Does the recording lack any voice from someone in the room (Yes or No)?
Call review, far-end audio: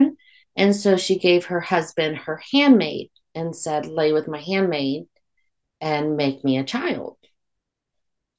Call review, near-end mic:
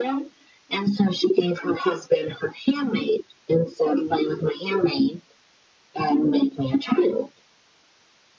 Yes